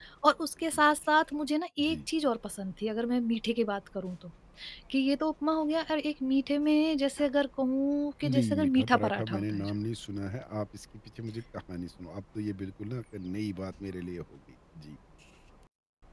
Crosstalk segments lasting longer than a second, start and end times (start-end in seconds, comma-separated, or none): 8.2-9.7